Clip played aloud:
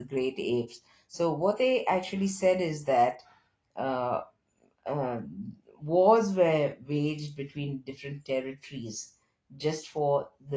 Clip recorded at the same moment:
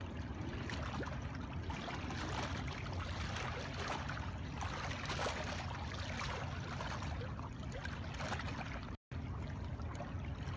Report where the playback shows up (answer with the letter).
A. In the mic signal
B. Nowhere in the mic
B